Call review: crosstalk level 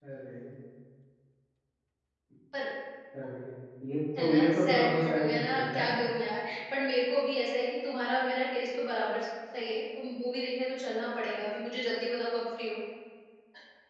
present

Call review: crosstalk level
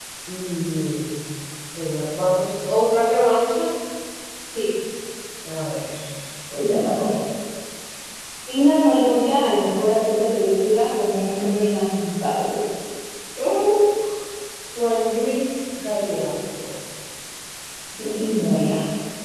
none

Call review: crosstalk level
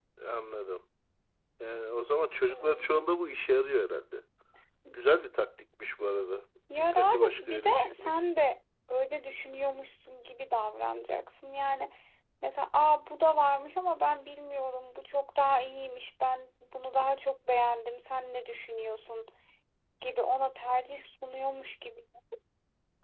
present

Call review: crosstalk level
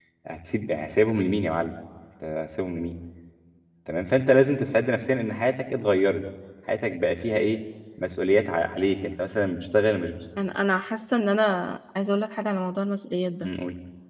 none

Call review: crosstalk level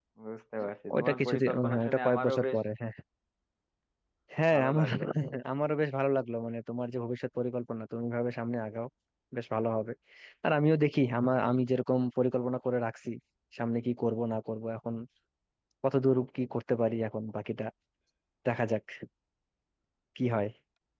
present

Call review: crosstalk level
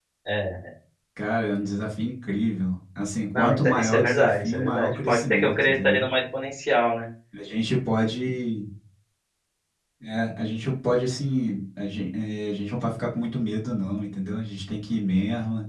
present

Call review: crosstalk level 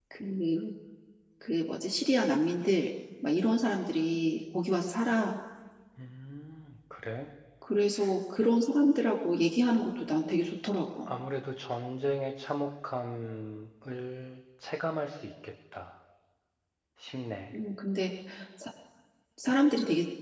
none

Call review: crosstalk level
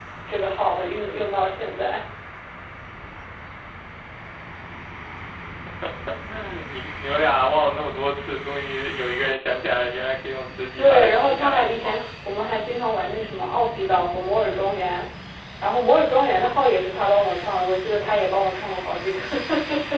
present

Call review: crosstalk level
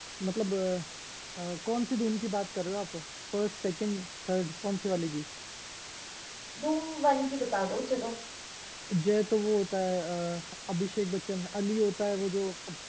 none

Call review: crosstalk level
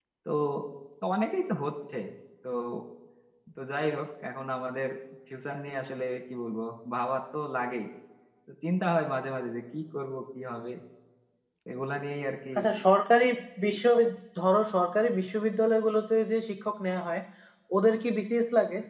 none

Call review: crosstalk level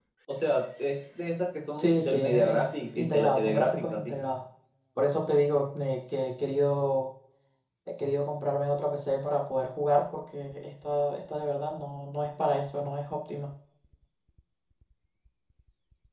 present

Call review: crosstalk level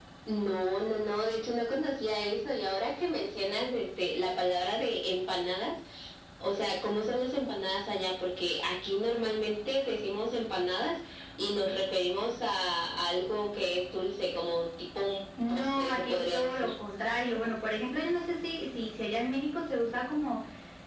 present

